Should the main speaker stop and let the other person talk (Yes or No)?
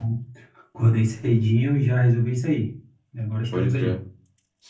Yes